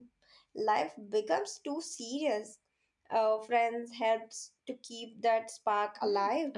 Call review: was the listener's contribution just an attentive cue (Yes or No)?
No